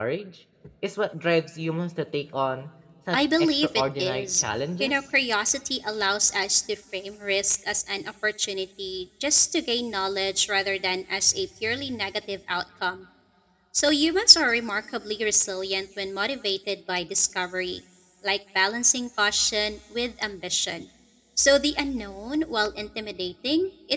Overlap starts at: 3.1 s

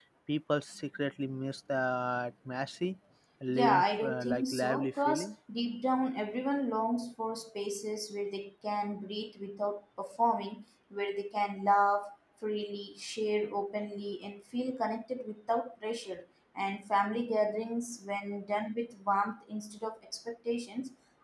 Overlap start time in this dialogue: 3.5 s

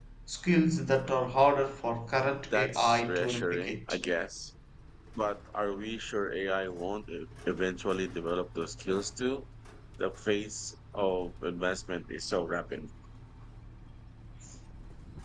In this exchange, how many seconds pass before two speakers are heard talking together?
2.5 s

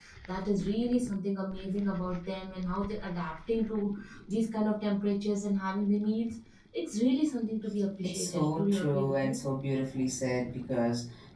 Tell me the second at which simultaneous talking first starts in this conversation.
8.0 s

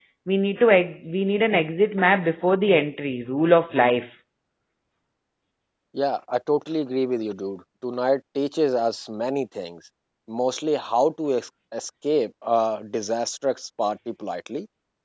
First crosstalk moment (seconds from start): none

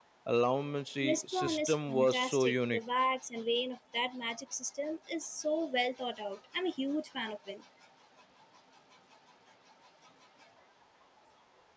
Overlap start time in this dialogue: 1.0 s

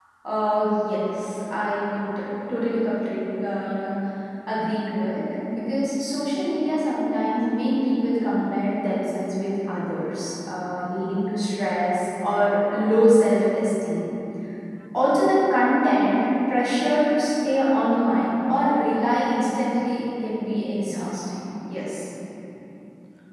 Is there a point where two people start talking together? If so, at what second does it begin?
none

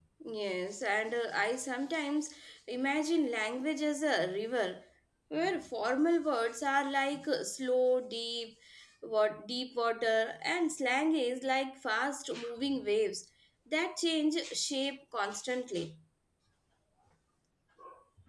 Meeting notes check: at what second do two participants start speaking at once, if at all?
none

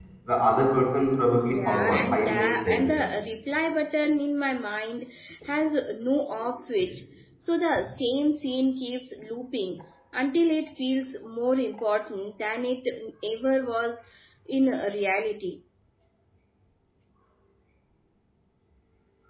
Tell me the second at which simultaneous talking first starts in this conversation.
1.4 s

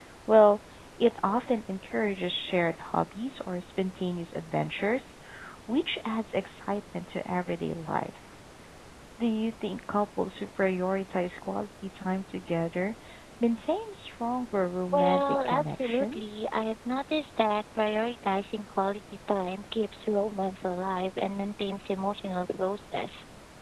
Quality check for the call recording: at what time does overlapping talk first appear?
14.9 s

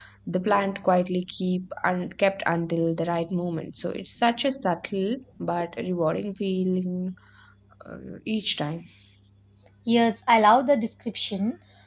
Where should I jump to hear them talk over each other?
none

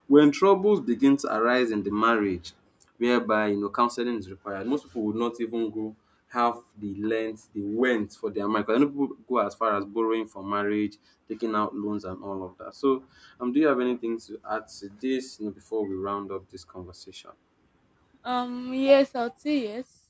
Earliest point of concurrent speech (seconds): none

